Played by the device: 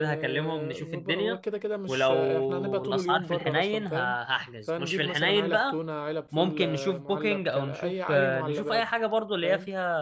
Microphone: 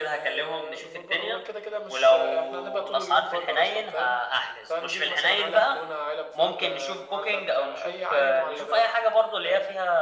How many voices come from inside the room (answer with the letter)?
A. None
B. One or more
A